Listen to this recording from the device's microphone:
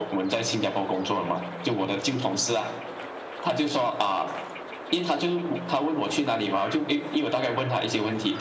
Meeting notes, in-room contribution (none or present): none